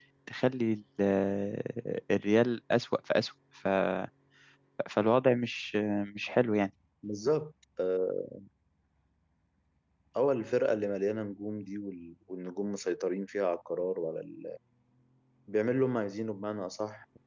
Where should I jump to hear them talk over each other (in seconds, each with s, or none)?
none